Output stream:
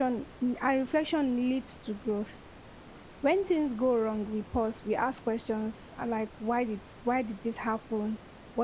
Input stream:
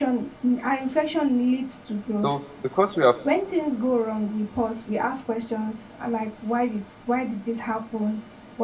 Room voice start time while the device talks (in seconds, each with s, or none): 2.2 s